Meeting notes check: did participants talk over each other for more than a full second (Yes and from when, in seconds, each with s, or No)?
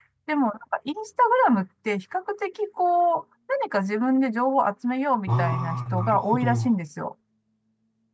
Yes, from 5.3 s